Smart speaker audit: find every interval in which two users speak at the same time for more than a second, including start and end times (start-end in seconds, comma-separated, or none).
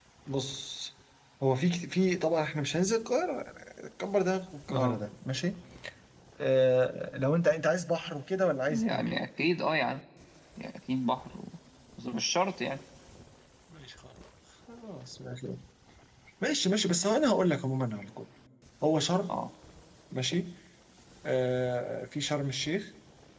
none